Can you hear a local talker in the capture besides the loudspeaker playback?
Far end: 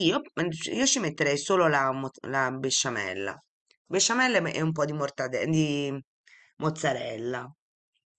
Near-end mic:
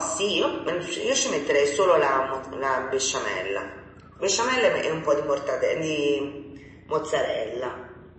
No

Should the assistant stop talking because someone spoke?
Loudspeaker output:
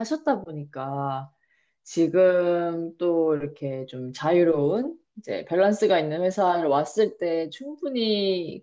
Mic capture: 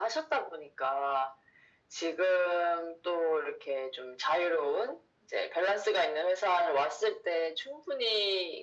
No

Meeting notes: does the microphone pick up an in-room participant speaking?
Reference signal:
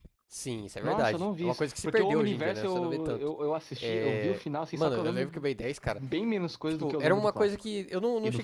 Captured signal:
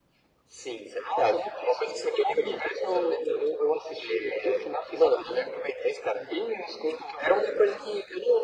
No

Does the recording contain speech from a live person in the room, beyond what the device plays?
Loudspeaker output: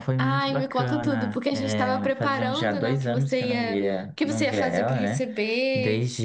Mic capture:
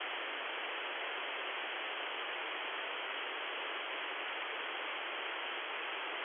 No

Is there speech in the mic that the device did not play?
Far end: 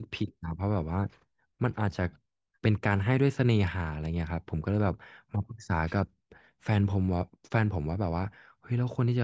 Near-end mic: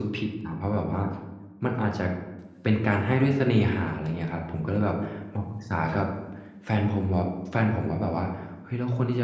No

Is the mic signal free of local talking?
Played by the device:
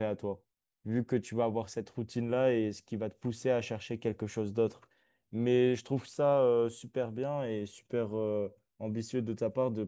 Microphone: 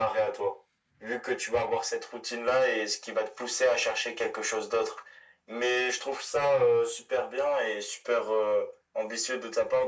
Yes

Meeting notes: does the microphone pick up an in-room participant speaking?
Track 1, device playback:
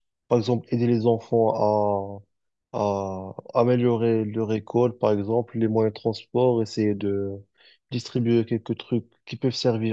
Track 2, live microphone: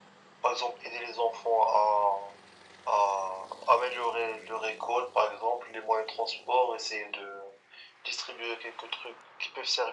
No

